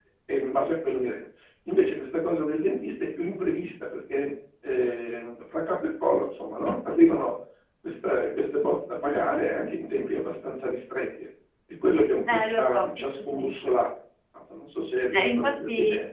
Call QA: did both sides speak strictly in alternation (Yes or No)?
No